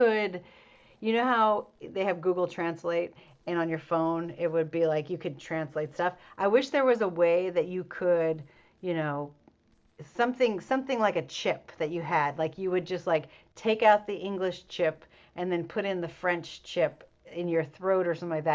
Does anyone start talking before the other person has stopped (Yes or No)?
No